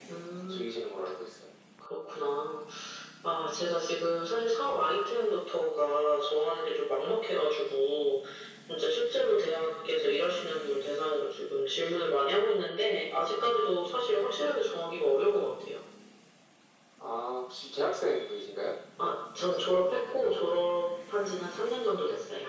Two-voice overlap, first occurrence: none

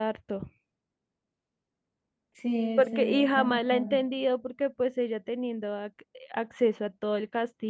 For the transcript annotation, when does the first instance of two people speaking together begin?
2.8 s

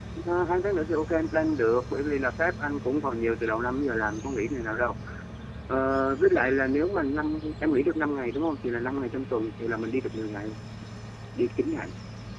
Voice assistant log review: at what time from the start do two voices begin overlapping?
none

